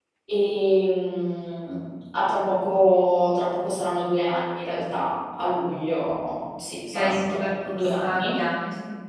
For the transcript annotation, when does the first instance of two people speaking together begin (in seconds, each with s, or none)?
6.9 s